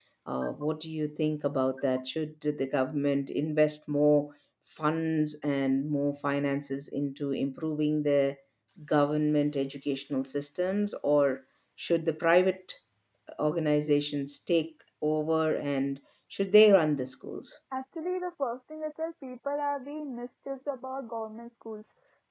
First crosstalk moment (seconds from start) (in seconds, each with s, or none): none